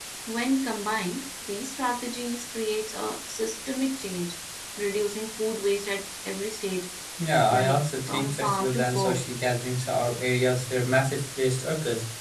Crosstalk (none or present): present